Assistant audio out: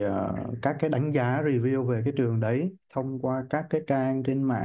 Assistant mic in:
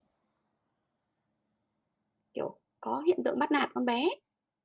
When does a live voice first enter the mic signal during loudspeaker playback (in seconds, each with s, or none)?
2.3 s